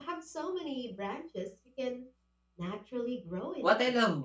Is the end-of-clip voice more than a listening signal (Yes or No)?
Yes